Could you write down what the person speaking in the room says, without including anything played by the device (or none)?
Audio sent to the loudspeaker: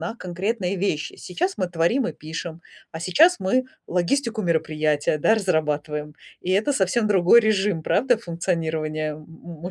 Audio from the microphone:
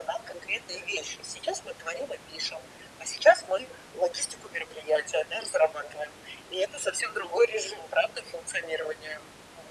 none